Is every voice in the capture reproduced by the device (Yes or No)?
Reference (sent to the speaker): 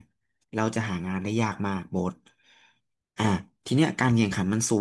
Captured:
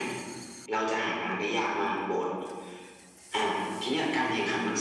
Yes